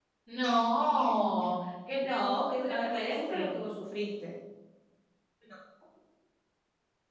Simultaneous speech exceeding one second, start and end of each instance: 2.1-3.5

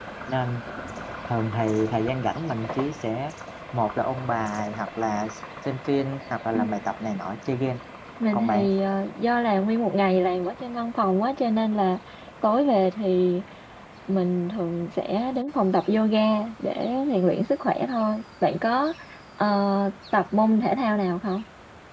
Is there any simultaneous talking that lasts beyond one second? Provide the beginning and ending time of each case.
none

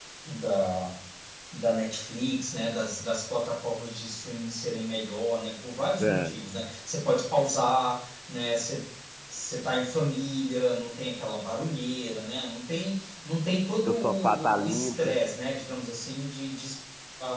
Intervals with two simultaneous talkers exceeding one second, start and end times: 13.8-15.2

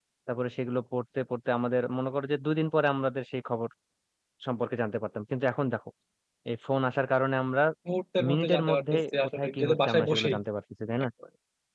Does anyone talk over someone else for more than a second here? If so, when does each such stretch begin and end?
8.3-10.4

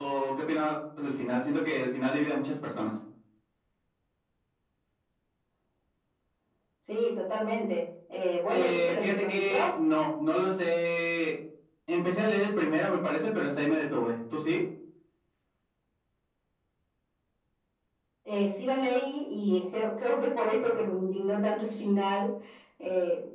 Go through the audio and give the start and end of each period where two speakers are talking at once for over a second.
8.5-9.7

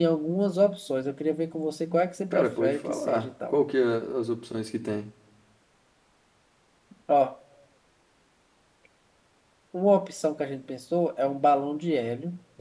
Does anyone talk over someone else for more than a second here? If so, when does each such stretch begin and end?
2.3-3.6

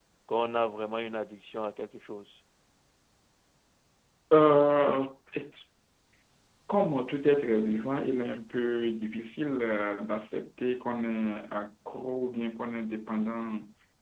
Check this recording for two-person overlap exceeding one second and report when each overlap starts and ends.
none

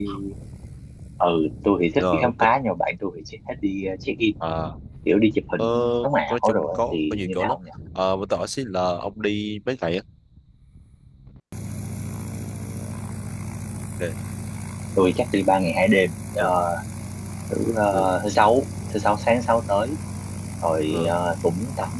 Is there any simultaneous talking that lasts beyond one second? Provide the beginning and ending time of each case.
6.3-7.6

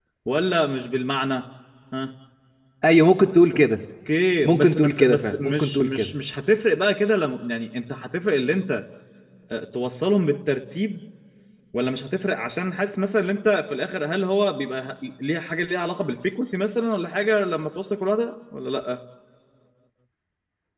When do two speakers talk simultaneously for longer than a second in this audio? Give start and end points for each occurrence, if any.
4.4-6.1

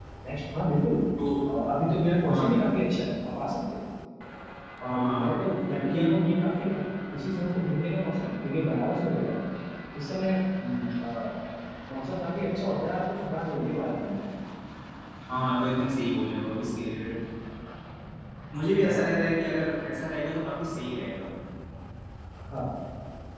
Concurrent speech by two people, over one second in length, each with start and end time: 4.8-6.1

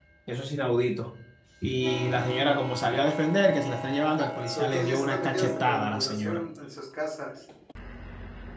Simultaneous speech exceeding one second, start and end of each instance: 4.5-6.4

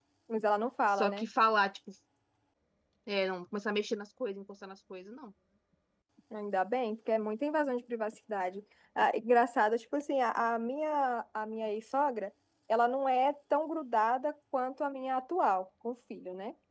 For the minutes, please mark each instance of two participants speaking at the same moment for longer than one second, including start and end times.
none

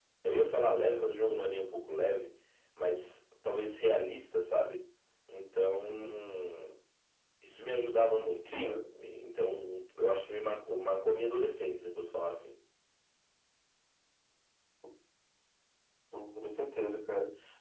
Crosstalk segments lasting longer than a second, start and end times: none

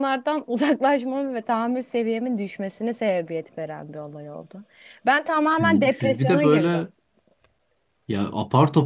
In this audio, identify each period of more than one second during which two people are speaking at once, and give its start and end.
5.6-6.8

